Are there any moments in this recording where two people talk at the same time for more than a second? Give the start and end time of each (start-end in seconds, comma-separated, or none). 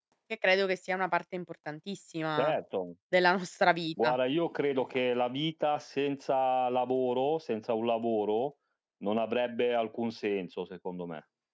none